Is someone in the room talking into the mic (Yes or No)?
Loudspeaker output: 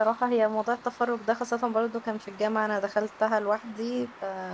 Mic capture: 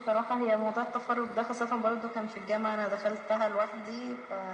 No